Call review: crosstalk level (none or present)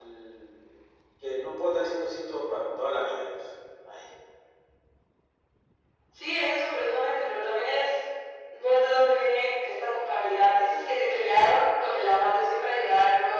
none